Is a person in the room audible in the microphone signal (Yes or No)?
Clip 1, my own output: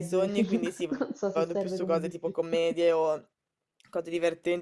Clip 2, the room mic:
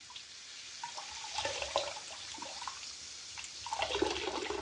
No